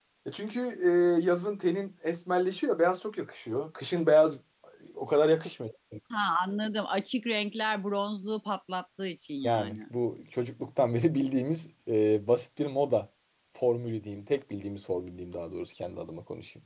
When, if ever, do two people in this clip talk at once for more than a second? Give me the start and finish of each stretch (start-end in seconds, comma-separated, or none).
none